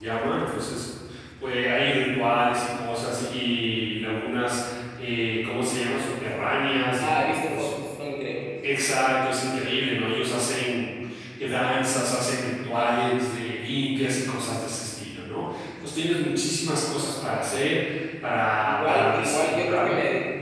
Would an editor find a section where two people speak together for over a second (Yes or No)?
Yes